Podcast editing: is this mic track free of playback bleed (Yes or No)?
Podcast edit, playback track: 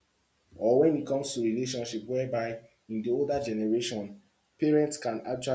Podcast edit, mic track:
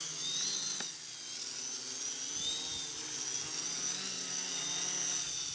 Yes